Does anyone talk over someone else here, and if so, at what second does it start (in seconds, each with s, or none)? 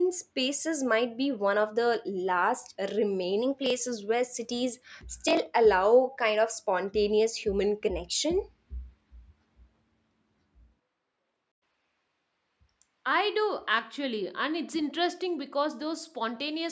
none